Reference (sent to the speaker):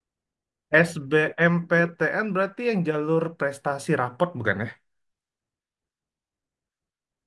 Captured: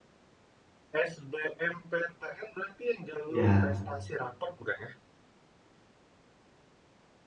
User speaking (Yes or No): Yes